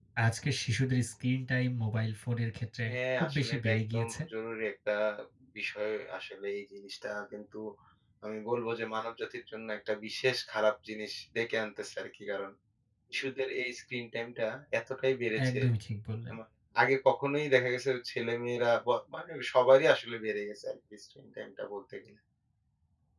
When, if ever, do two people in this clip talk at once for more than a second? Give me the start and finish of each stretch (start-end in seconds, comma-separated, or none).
2.9-4.2